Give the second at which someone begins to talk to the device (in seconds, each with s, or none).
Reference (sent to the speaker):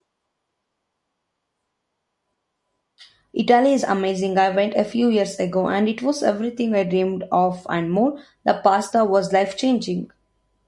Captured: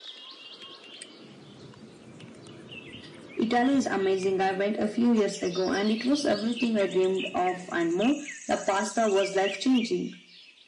none